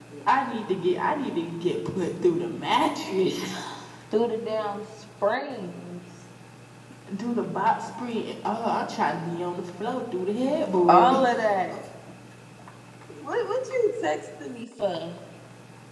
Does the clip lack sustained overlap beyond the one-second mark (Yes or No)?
Yes